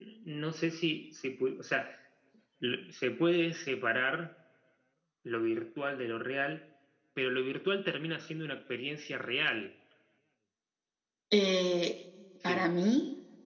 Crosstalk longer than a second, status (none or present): none